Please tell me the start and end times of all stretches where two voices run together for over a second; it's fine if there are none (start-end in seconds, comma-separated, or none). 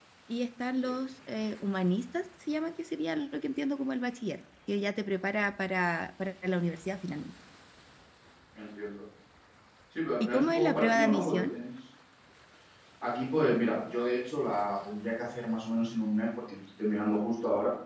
10.2-11.6